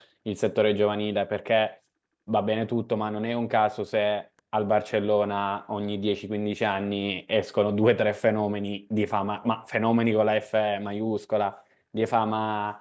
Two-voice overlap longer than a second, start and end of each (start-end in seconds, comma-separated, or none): none